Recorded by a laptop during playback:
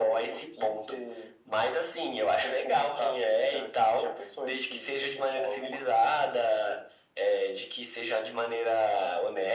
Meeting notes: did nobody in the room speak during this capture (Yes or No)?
Yes